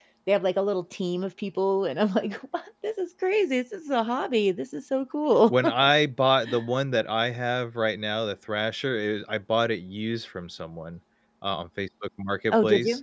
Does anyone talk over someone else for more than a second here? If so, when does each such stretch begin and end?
none

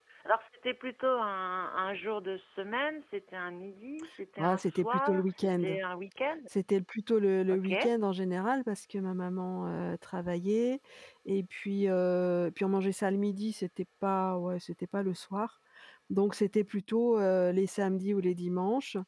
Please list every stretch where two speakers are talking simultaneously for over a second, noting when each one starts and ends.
4.4-5.6

